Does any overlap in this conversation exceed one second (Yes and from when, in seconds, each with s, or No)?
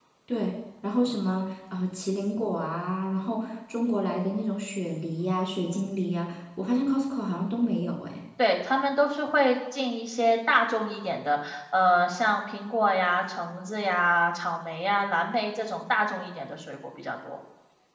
No